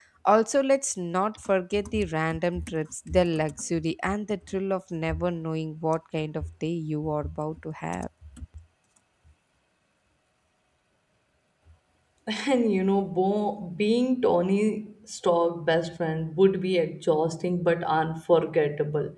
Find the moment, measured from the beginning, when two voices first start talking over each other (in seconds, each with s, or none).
none